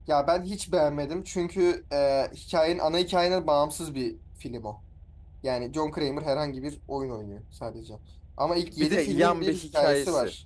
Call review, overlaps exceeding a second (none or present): present